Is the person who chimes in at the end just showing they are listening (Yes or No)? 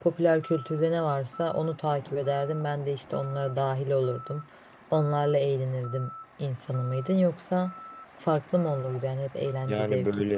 No